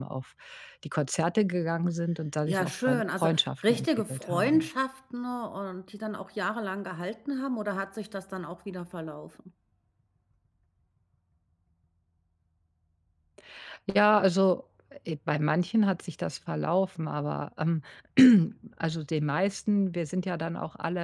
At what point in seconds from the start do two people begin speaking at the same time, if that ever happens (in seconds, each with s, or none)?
2.5 s